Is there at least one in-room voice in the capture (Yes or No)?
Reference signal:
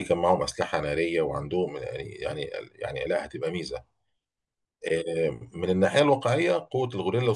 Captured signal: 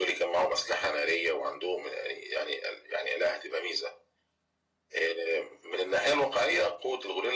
No